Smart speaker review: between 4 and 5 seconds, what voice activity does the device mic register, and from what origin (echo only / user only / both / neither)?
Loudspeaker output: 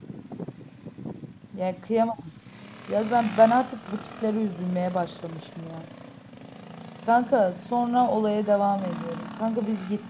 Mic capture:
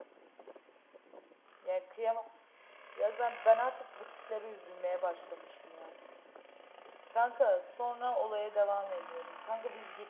echo only